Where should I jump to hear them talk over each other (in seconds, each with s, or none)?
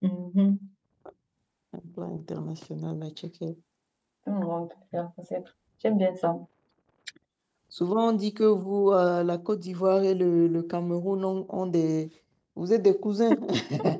none